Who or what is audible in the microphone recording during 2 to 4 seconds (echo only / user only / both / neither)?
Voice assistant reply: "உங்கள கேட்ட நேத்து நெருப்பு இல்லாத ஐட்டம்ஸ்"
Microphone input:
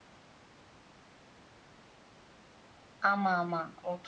user only